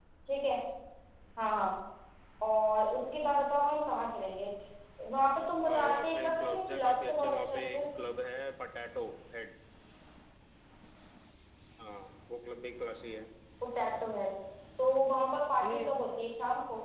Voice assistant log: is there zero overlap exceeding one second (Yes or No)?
No